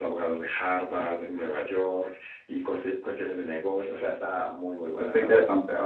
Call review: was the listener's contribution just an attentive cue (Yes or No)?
No